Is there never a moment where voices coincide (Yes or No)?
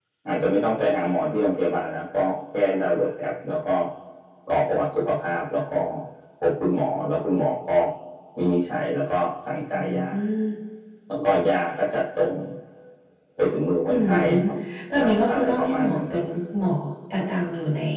No